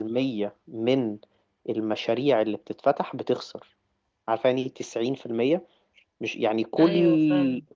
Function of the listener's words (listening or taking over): listening